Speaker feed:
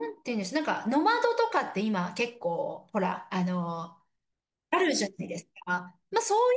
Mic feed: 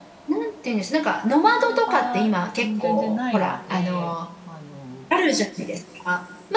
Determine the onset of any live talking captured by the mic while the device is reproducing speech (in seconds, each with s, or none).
1.5 s